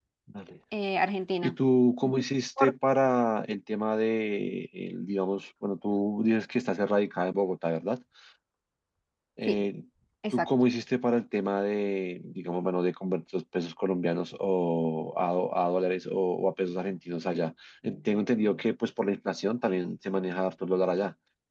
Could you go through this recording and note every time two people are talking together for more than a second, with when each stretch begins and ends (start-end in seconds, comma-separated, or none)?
none